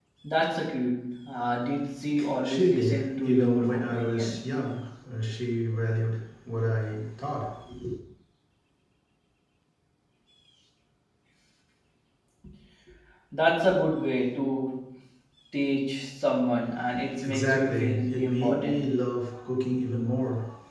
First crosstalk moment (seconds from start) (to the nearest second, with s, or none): 2 s